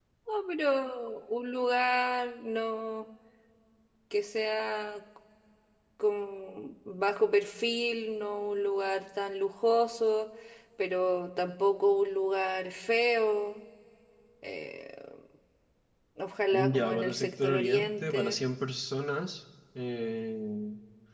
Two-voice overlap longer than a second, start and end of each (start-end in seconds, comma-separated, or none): 16.5-18.4